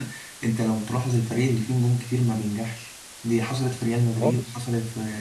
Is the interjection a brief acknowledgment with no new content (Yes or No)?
Yes